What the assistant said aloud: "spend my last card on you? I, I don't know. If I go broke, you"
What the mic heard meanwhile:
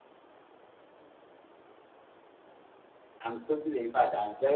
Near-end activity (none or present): present